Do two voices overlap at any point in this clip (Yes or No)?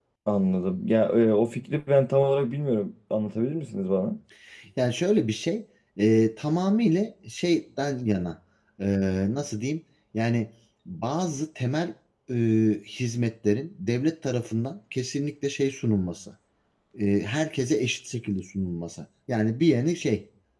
No